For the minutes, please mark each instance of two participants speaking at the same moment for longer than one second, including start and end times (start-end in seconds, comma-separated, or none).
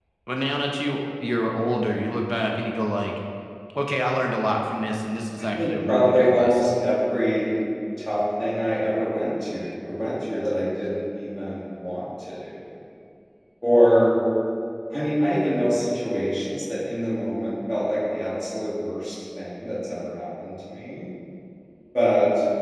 5.4-6.7